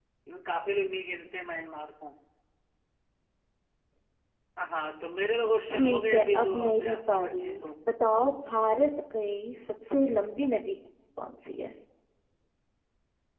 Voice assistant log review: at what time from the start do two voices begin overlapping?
5.7 s

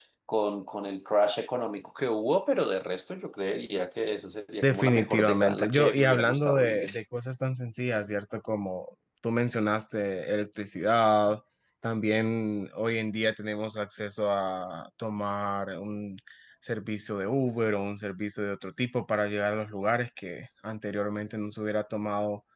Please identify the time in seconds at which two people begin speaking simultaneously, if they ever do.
4.6 s

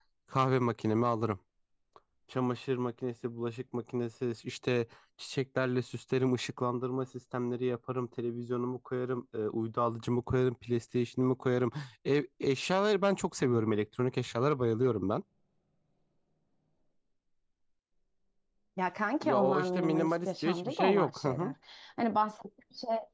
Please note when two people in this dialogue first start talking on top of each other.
19.2 s

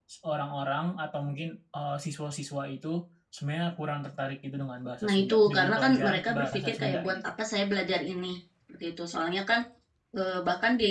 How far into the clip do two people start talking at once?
5.0 s

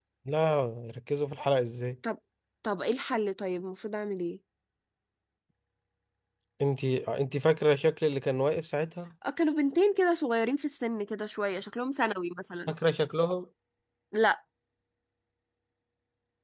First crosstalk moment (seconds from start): none

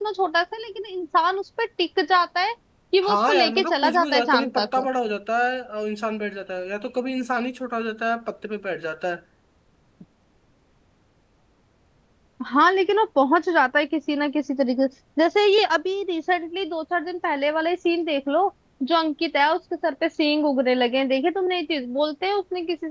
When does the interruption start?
3.0 s

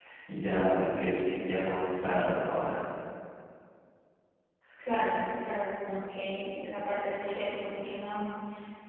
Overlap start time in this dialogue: none

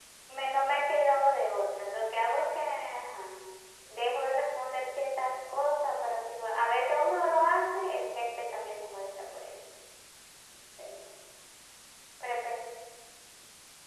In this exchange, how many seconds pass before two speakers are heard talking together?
none

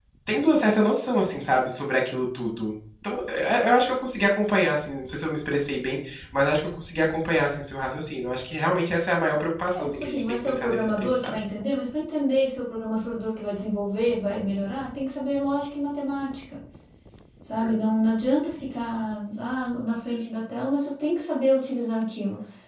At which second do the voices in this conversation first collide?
9.7 s

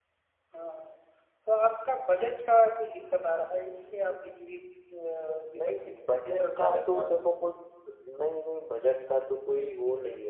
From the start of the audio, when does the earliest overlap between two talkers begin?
5.5 s

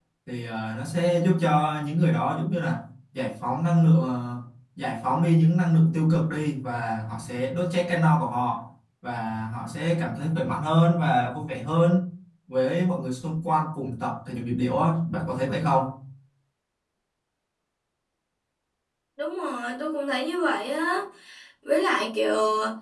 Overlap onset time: none

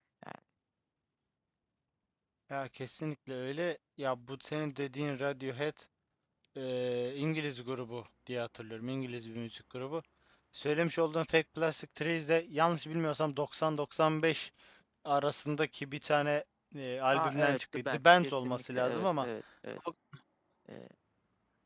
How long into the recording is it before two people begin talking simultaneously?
17.1 s

